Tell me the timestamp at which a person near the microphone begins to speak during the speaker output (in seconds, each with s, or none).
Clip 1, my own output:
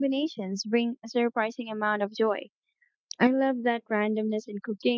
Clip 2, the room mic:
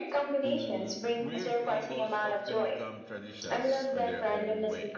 0.4 s